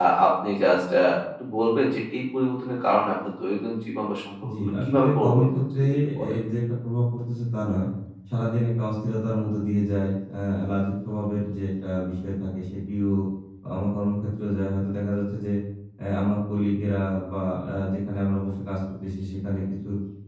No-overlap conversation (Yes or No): No